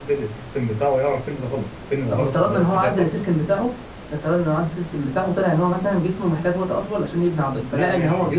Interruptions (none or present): present